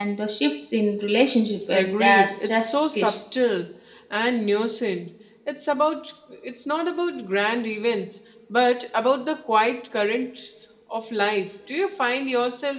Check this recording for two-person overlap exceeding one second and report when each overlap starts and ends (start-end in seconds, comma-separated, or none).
1.7-3.1